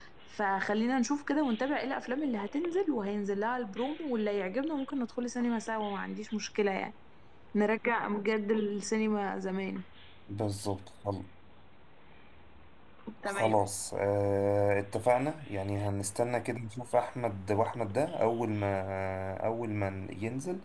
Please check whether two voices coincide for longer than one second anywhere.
No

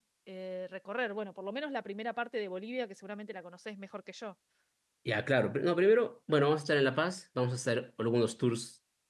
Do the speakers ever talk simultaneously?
No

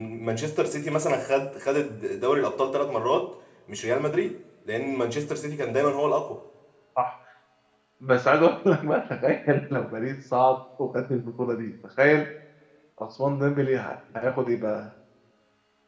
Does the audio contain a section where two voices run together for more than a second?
No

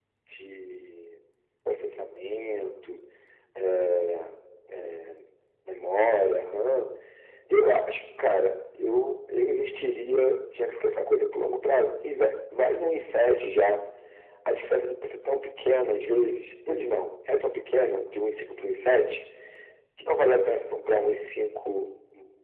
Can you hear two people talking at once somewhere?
No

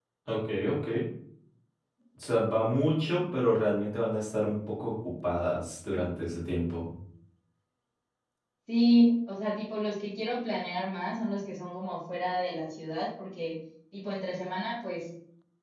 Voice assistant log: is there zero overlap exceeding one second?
Yes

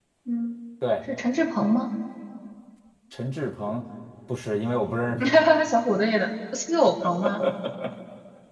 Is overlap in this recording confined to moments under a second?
Yes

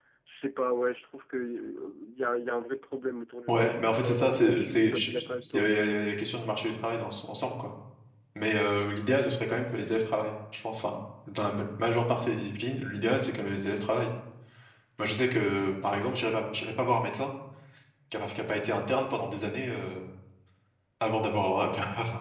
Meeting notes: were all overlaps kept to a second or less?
No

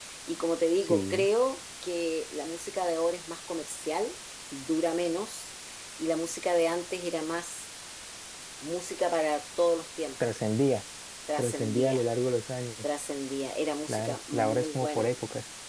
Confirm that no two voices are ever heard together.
No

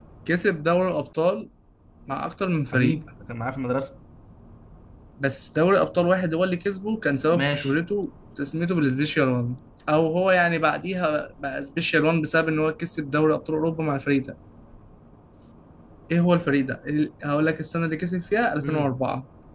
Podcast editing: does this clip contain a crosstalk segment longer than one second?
No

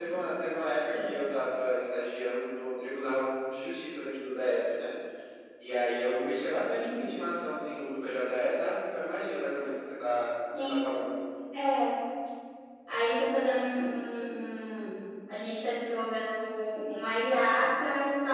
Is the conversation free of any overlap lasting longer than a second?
Yes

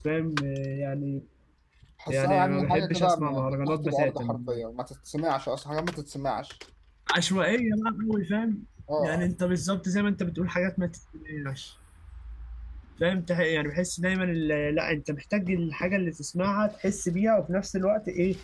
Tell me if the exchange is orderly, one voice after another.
No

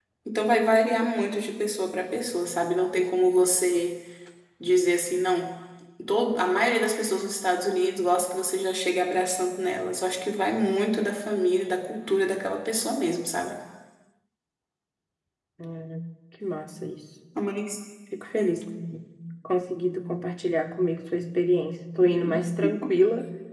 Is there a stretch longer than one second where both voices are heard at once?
No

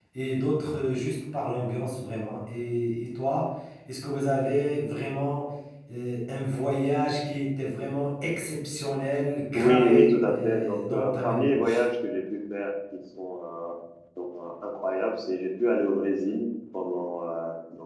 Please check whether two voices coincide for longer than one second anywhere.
Yes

